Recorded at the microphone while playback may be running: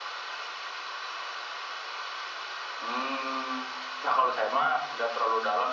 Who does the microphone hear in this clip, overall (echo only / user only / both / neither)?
echo only